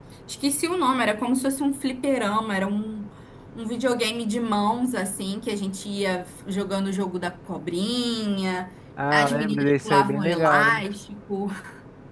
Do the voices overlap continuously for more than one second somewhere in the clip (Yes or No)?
Yes